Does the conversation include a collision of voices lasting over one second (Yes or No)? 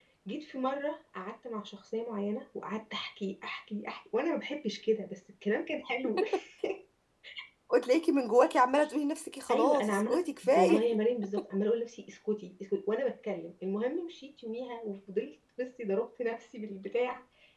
Yes